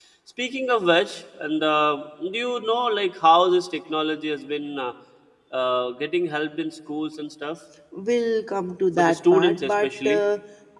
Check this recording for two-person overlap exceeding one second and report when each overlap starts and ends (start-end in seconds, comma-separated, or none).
9.0-10.2